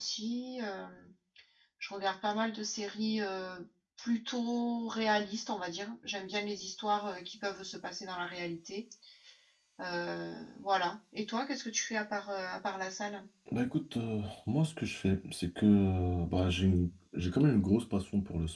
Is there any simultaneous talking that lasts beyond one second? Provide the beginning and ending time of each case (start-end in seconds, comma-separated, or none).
none